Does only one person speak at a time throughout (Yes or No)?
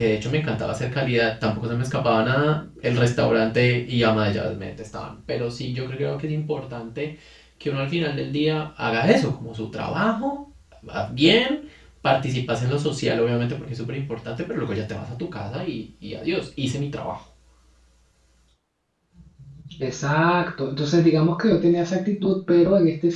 Yes